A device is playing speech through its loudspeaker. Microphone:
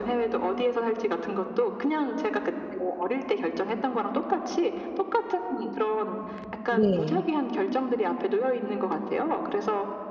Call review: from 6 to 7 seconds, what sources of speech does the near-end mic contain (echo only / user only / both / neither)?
both